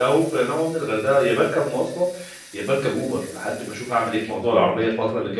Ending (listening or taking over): listening